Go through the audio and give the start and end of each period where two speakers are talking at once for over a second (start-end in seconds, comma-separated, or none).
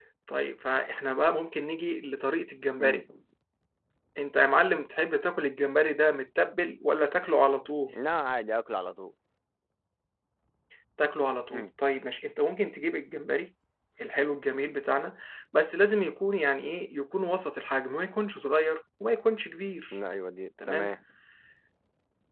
none